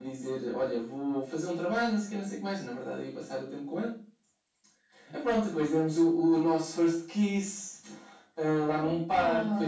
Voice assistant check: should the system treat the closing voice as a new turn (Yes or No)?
No